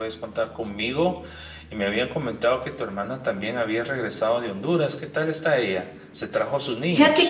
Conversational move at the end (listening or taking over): taking over